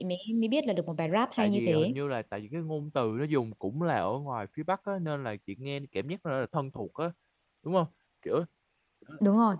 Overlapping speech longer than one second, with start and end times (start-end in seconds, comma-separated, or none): none